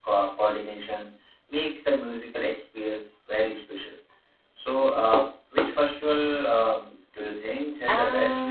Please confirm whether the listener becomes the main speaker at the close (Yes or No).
Yes